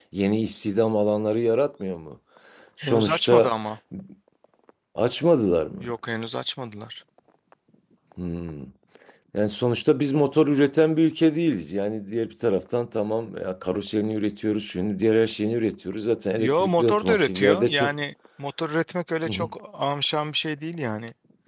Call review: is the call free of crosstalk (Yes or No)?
No